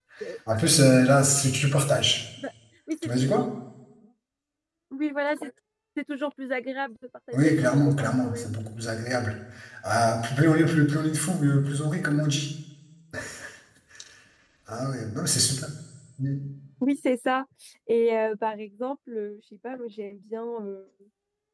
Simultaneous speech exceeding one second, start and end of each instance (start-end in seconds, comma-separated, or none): 7.3-8.6